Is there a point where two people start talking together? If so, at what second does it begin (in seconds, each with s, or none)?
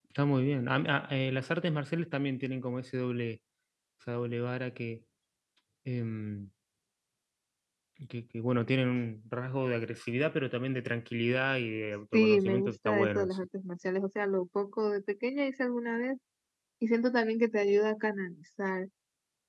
12.1 s